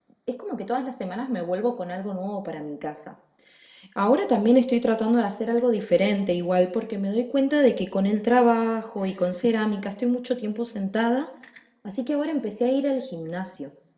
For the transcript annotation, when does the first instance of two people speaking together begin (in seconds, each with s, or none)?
none